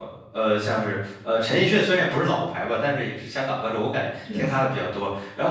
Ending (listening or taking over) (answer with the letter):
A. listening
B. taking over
A